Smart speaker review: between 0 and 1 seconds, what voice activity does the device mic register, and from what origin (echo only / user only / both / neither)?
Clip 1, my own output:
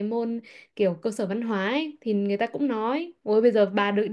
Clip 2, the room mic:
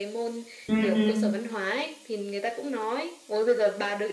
both